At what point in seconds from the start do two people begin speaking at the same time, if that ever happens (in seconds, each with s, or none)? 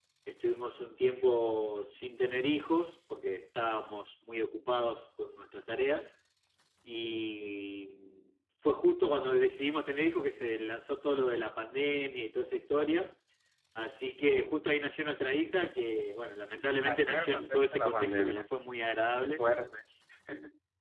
16.8 s